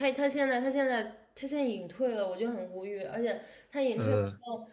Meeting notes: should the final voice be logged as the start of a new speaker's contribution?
No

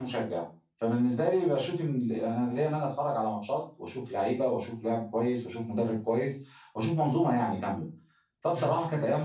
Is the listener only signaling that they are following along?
Yes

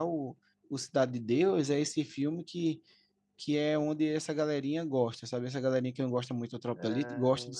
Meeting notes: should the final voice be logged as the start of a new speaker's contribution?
Yes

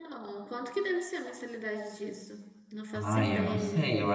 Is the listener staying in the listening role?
No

